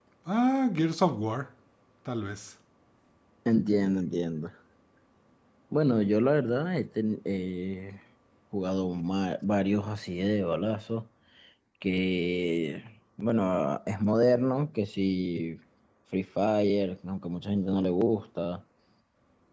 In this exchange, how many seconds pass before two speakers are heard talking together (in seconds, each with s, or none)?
none